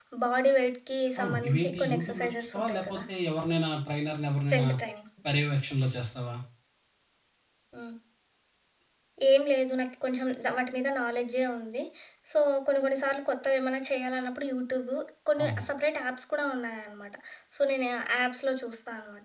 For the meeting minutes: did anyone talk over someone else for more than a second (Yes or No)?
Yes